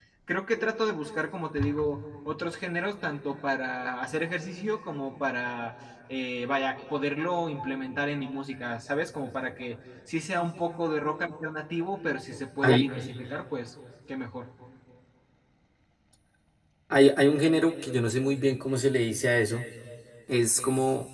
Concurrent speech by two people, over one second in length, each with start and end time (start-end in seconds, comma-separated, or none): none